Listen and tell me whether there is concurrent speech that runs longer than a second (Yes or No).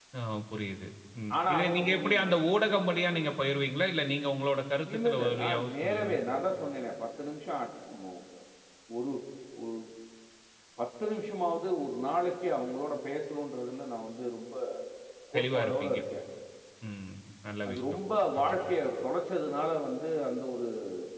Yes